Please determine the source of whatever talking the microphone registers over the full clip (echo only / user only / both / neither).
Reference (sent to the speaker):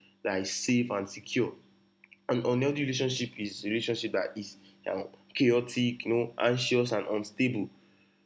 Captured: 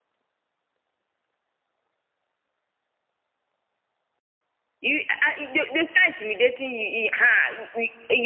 user only